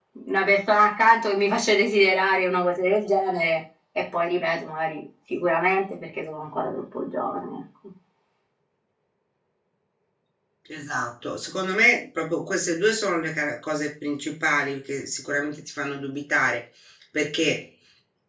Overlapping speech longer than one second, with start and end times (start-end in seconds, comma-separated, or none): none